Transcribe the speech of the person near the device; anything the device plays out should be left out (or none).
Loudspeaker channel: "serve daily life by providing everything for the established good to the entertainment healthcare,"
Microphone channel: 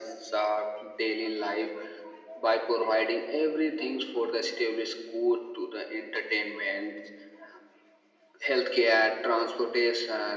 none